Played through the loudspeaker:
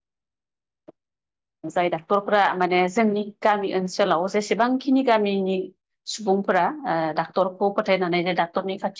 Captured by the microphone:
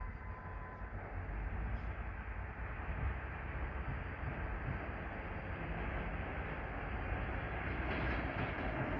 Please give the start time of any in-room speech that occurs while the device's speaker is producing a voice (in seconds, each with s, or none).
none